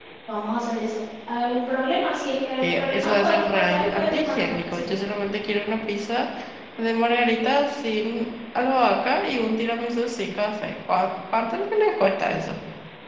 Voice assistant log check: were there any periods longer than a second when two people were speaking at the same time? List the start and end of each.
2.6-5.0

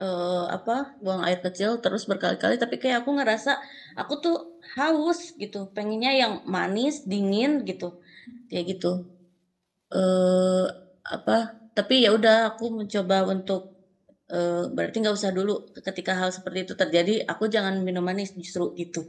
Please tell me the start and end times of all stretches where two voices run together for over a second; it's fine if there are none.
none

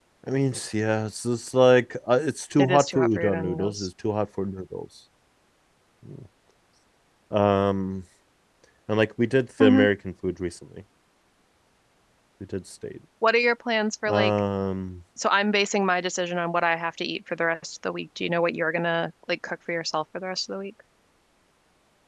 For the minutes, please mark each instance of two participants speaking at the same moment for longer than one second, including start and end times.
2.6-3.9

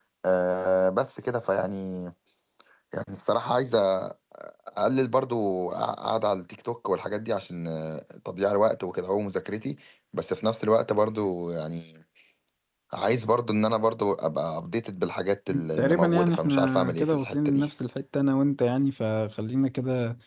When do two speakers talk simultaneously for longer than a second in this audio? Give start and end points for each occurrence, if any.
15.8-17.7

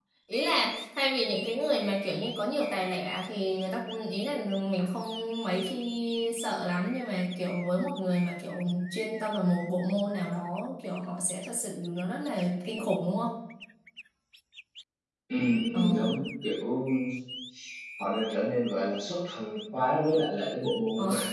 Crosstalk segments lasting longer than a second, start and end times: none

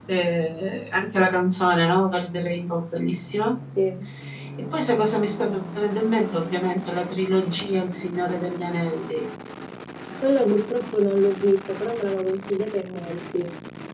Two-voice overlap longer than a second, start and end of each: none

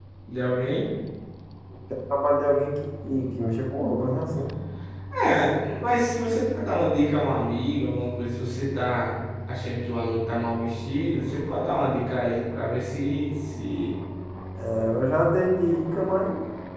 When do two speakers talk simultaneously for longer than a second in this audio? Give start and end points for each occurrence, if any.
none

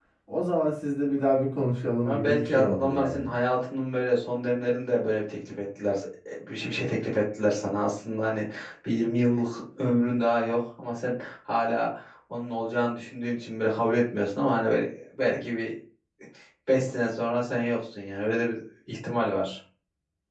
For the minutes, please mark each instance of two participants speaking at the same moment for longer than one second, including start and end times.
2.0-3.3

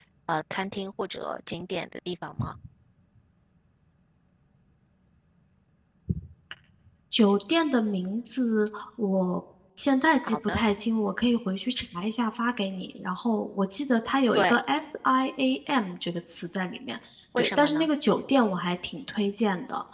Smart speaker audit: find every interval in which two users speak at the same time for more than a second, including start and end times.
none

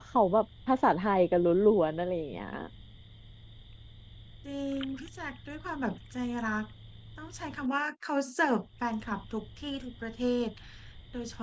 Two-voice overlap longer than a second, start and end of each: none

